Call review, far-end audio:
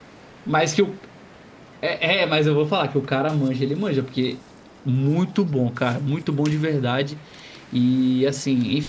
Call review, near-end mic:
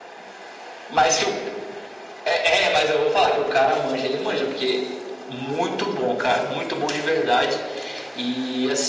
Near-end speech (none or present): none